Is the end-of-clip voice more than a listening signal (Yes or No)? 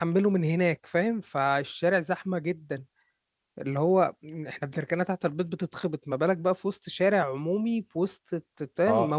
Yes